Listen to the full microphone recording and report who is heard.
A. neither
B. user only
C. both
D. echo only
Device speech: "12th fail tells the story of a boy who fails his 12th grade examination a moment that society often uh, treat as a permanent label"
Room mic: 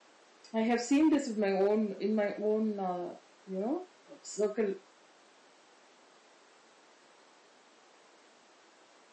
B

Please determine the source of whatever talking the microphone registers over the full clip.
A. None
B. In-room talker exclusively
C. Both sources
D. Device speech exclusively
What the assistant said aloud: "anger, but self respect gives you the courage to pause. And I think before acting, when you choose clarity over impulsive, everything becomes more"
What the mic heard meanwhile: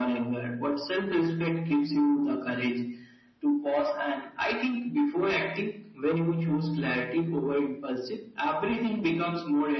D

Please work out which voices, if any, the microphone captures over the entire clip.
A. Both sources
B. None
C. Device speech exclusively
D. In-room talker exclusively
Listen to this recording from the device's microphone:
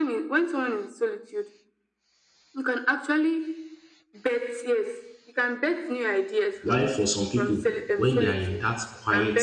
A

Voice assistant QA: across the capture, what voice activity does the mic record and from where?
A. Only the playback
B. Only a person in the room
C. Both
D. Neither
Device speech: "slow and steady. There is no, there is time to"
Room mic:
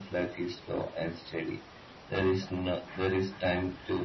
A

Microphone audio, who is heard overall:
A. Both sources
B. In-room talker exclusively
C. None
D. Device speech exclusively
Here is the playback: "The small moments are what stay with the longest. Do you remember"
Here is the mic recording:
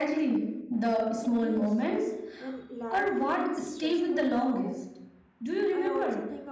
A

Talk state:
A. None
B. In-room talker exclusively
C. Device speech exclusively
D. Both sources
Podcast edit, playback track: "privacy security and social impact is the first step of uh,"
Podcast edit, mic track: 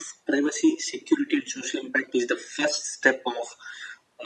C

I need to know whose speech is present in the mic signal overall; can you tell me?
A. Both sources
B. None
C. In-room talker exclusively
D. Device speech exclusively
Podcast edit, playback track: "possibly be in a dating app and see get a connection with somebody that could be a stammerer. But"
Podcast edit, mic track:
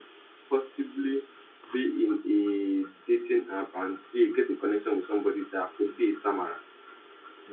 D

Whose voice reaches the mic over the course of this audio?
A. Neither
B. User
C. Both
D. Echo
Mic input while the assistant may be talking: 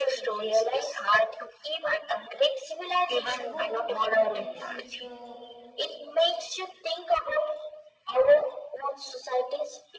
C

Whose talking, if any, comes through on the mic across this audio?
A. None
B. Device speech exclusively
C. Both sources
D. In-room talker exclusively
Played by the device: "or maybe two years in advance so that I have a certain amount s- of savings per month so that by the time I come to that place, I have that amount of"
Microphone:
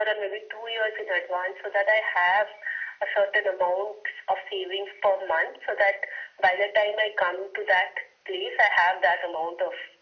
B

